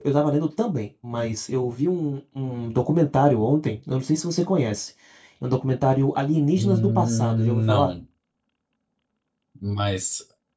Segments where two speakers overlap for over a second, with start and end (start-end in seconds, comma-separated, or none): 6.5-7.9